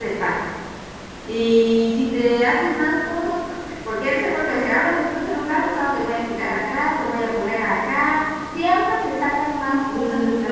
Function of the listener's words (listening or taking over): taking over